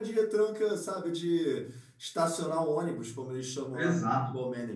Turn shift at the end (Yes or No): Yes